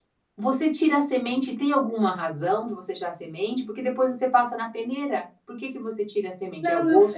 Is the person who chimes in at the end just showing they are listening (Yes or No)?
No